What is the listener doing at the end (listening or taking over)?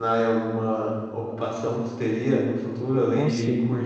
listening